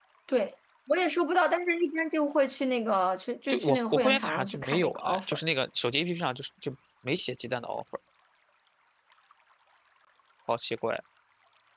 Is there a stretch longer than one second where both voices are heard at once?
Yes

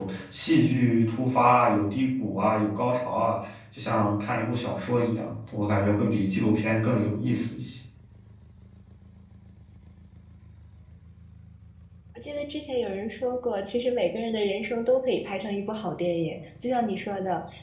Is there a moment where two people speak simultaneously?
No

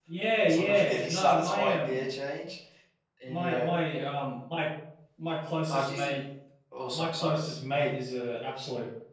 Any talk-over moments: Yes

